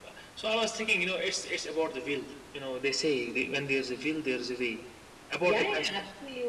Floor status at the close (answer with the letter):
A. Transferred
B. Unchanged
A